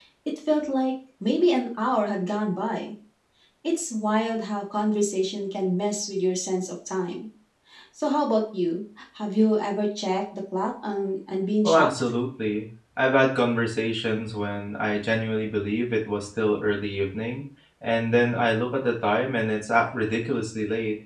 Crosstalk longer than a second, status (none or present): none